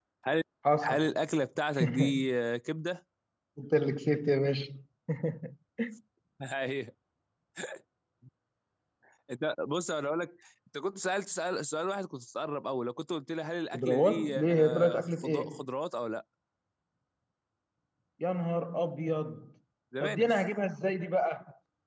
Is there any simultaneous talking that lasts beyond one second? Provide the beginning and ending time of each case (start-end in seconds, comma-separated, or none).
13.7-15.6